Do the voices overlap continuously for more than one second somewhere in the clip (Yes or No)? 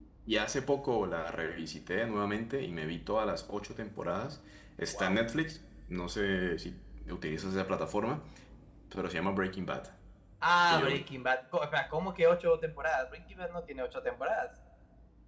No